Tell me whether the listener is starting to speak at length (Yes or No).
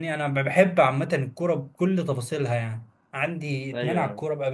No